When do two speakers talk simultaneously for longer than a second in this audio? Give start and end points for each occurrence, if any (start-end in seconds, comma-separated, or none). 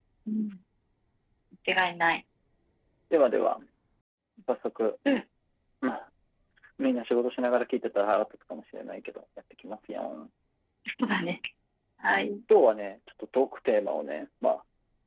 none